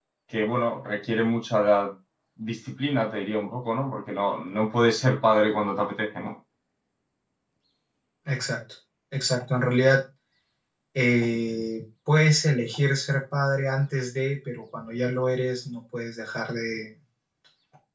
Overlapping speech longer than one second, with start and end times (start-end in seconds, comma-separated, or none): none